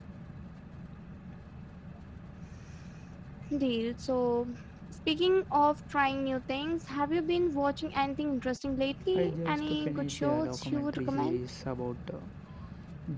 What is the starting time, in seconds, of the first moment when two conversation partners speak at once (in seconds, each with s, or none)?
9.2 s